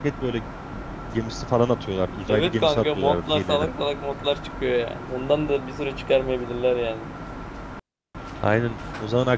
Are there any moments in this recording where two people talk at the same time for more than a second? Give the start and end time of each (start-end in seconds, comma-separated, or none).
2.3-3.7